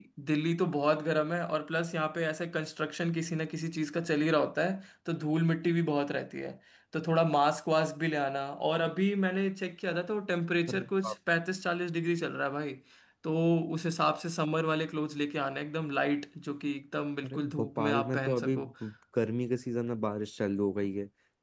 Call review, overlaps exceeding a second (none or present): present